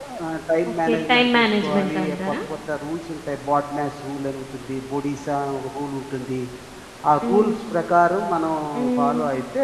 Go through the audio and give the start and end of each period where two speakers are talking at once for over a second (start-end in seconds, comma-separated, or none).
0.7-2.3